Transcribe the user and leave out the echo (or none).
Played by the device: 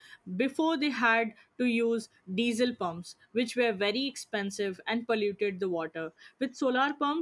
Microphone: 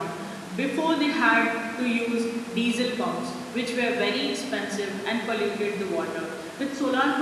none